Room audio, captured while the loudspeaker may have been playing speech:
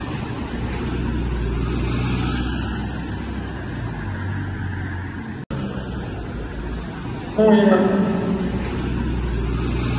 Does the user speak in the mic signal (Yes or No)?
Yes